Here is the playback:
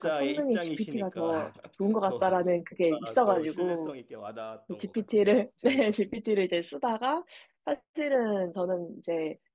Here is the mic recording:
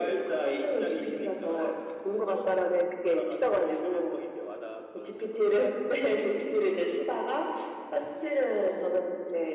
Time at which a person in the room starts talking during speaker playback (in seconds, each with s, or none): none